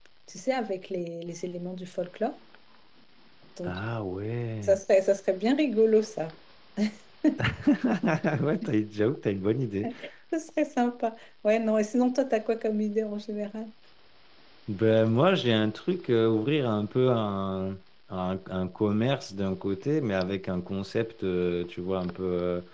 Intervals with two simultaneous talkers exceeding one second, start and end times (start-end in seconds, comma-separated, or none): none